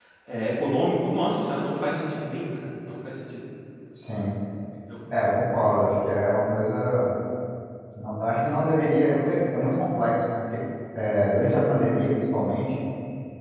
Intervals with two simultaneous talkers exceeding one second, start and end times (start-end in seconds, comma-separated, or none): none